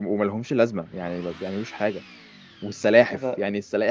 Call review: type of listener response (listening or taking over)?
listening